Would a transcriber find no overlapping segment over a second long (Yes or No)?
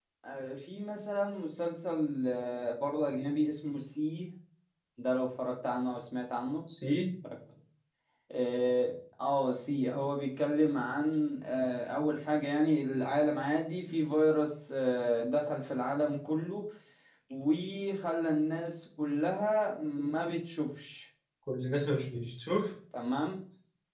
Yes